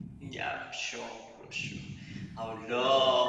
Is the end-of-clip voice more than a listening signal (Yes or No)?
No